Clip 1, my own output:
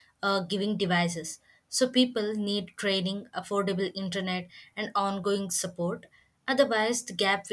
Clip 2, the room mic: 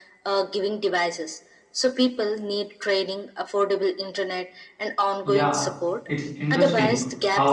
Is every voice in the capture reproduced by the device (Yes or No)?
No